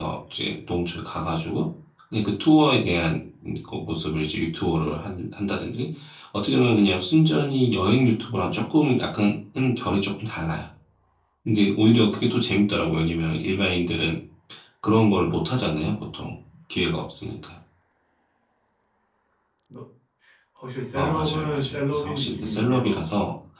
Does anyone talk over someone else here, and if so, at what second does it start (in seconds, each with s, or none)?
20.9 s